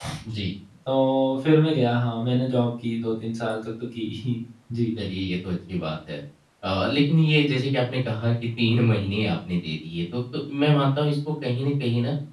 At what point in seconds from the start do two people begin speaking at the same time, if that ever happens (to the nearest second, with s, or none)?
none